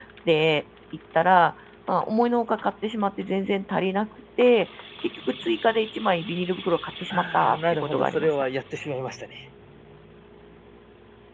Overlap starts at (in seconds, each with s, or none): 7.1 s